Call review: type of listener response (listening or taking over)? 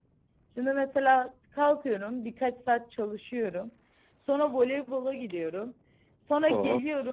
listening